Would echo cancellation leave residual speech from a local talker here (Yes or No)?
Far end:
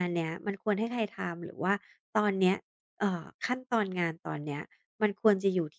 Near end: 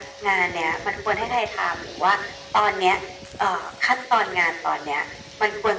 No